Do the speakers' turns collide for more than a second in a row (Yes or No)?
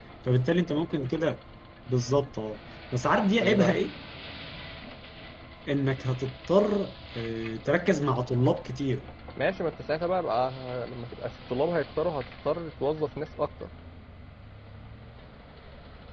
No